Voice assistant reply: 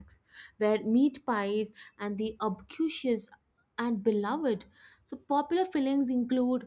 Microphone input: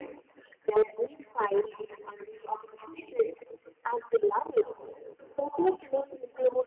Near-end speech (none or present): none